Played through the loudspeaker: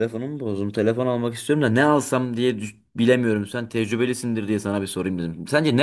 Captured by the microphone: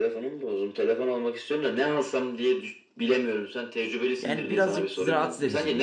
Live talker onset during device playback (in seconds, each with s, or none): 4.2 s